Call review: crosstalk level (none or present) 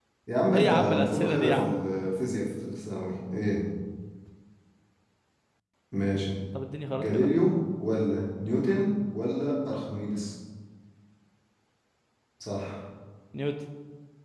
present